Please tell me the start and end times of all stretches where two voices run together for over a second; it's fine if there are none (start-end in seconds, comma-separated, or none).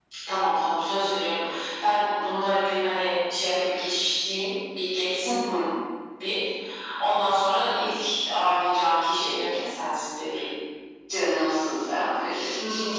none